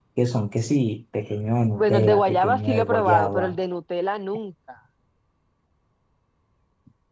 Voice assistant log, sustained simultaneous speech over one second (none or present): present